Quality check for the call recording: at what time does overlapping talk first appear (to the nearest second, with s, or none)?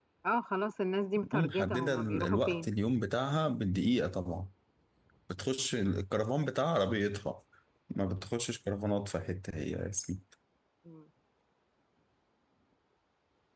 1 s